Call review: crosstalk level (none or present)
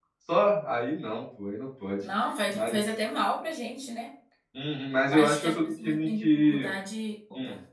present